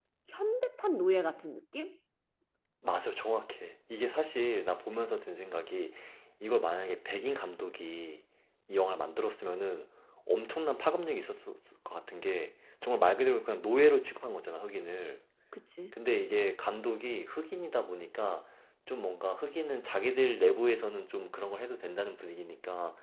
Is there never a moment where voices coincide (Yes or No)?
Yes